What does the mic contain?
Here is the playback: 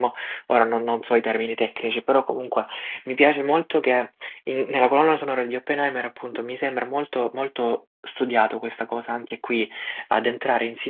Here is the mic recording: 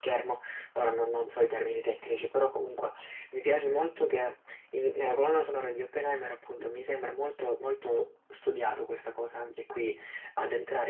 echo only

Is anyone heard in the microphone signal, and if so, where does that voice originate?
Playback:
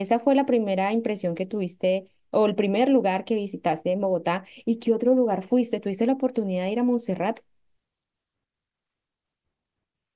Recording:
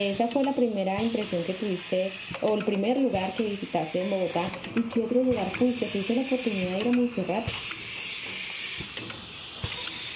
echo only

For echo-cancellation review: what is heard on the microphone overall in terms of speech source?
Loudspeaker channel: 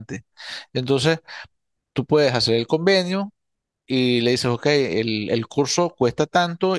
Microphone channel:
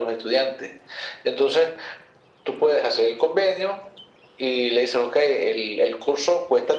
echo only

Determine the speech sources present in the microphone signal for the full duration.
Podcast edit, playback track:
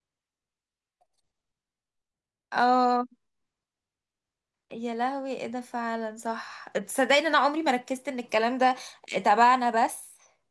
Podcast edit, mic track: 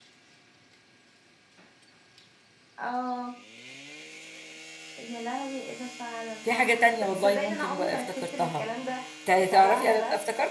both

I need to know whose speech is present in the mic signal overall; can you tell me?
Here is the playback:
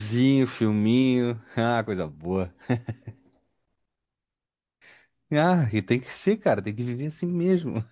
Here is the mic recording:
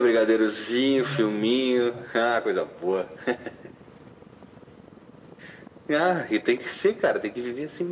both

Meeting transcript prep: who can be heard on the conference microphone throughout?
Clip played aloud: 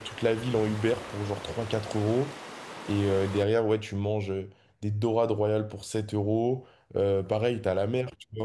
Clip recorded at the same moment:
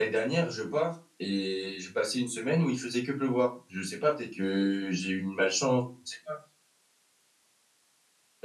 user only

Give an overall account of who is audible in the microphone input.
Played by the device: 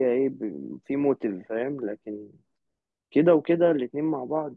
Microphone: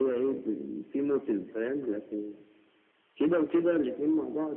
echo only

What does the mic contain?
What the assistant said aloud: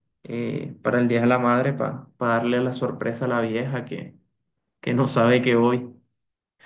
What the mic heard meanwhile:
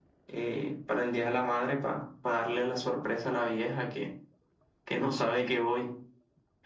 echo only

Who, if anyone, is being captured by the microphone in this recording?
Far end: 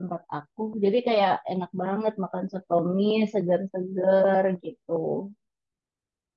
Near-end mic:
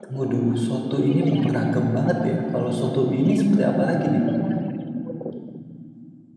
both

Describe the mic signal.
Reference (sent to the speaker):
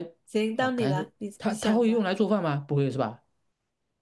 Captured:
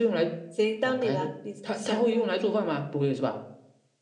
echo only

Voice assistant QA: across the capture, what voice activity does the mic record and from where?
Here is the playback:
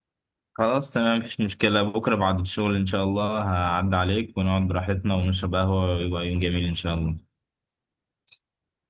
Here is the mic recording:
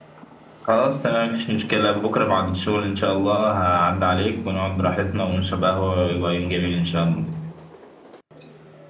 echo only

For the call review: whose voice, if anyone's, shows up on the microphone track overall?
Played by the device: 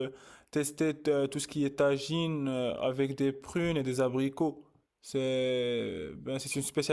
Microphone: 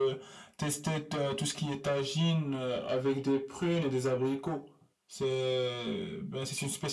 echo only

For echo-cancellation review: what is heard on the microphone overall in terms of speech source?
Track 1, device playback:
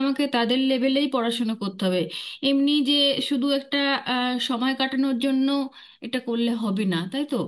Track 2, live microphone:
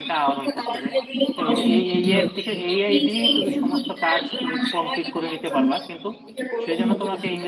both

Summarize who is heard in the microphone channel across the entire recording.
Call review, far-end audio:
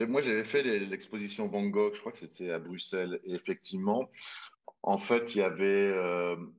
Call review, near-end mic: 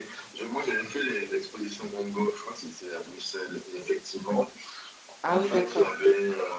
both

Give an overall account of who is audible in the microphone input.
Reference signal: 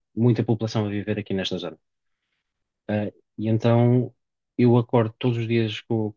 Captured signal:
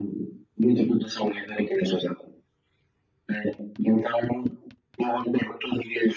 echo only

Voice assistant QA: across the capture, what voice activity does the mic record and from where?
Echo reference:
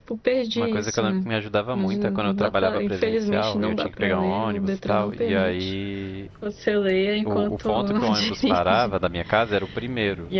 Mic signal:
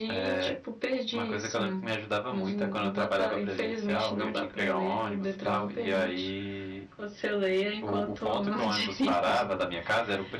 echo only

